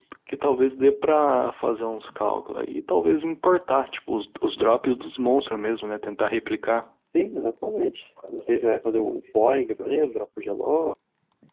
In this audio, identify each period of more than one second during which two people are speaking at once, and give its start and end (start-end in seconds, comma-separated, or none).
none